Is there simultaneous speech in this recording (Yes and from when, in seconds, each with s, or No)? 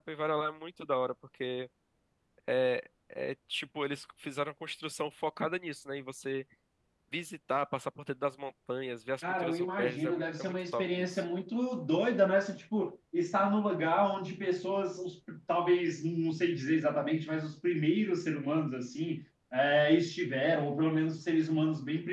Yes, from 9.2 s